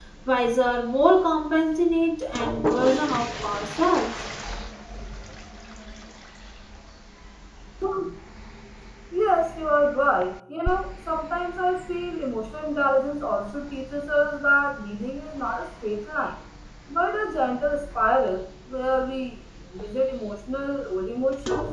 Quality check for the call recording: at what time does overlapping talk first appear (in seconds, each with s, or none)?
none